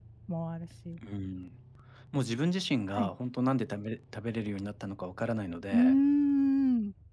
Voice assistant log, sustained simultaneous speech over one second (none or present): none